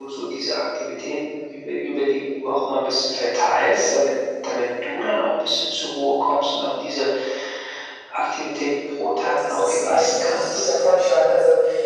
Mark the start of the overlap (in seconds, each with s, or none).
9.2 s